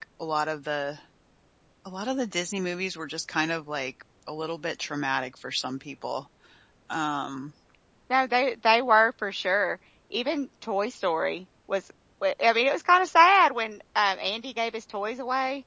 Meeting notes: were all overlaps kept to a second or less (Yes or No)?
Yes